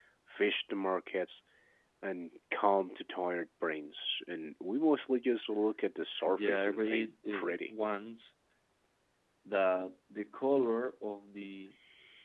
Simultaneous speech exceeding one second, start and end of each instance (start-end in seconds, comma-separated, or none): 6.2-7.7